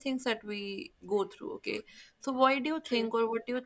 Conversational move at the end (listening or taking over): listening